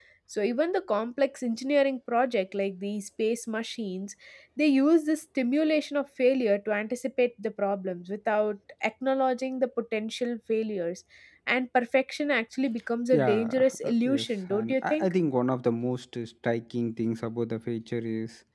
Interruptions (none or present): present